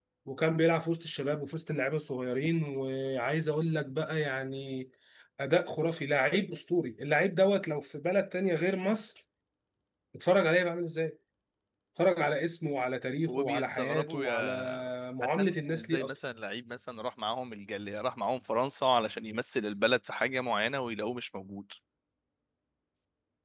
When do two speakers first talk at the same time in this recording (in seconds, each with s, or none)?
13.3 s